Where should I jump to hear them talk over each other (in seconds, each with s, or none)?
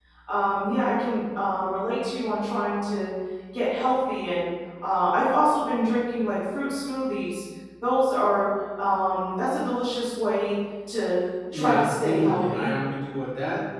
11.5 s